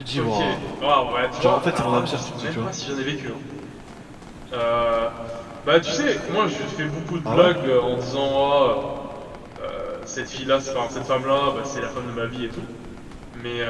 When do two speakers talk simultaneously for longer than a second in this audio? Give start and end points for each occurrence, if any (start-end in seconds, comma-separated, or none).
1.4-2.7